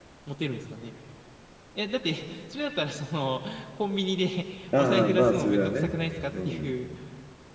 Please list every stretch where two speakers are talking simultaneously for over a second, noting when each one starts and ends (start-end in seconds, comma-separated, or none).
4.7-6.0